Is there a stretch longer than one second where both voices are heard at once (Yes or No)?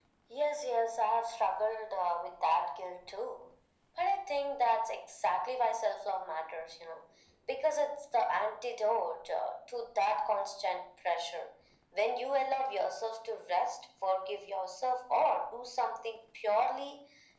No